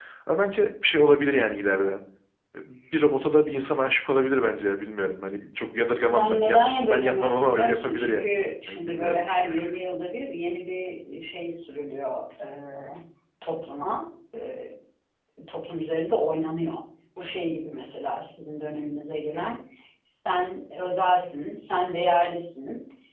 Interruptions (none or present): present